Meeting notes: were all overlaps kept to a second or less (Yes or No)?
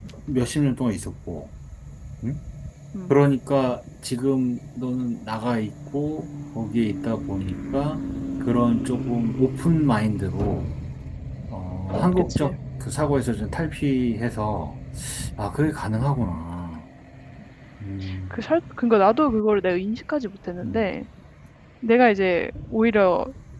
Yes